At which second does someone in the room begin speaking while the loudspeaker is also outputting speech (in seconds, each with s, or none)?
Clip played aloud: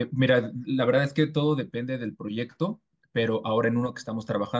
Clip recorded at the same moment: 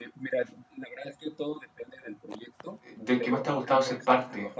2.9 s